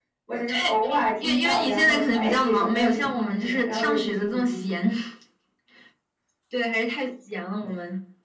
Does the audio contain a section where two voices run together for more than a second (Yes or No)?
Yes